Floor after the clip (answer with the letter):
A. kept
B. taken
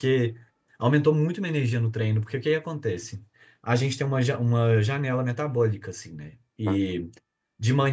A